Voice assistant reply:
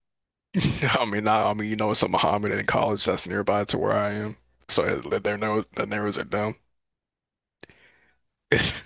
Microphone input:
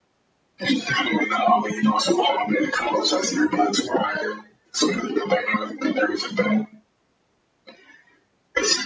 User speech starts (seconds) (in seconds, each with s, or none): none